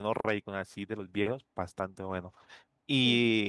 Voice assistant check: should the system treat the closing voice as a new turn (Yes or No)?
No